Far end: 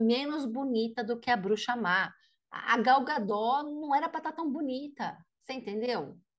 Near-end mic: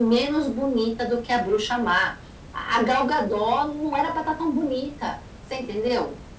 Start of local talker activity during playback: none

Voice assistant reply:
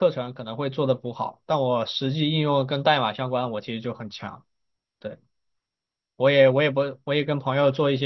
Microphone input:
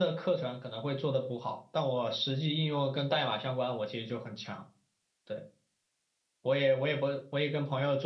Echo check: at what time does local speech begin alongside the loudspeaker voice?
none

